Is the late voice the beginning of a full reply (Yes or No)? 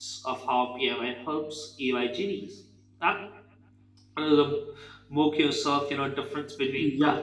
Yes